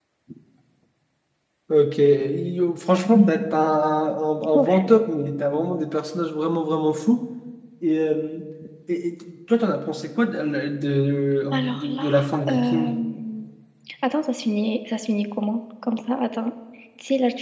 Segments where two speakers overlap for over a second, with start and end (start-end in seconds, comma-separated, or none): 11.5-12.9